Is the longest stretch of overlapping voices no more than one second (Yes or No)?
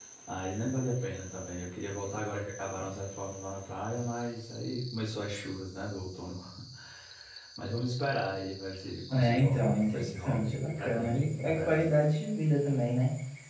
No